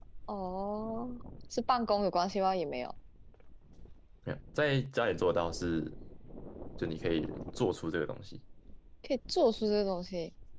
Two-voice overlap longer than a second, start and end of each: none

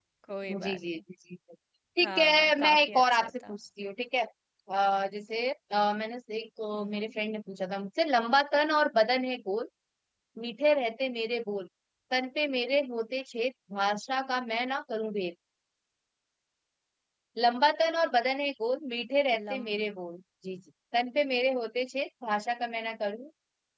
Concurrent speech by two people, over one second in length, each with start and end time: 2.0-3.6

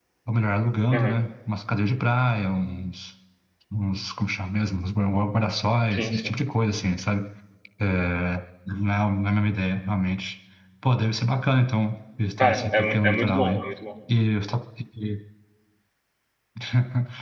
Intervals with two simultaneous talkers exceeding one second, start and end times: 12.4-13.6

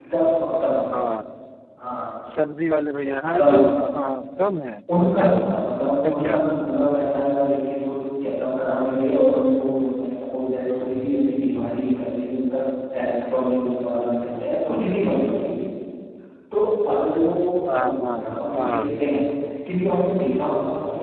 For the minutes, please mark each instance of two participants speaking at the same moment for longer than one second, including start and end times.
5.0-6.4

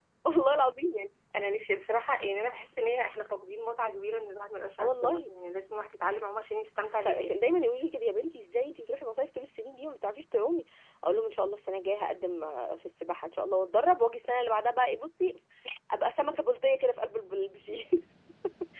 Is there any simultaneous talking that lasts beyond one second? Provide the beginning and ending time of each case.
none

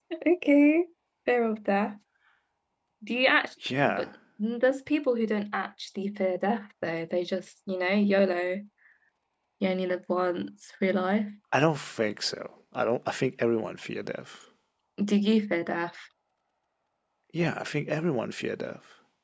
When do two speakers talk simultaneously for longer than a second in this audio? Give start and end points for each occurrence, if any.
none

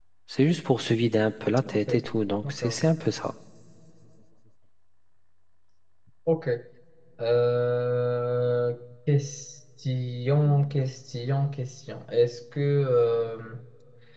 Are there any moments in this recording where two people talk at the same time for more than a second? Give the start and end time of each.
none

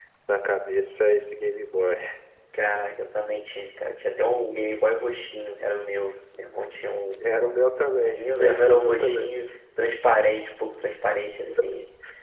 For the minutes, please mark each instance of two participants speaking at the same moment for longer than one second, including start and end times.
7.9-9.3

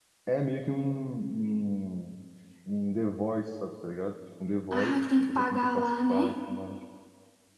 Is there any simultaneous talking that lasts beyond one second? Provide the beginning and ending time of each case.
4.7-6.3

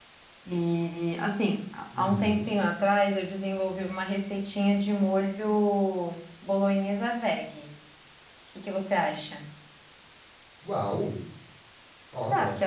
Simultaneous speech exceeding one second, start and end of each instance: none

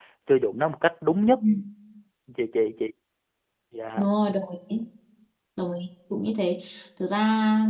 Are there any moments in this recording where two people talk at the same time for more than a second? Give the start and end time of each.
none

